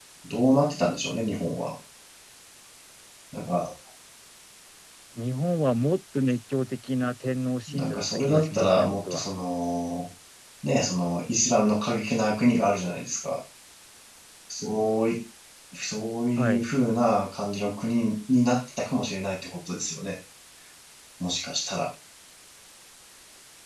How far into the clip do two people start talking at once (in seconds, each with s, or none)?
7.7 s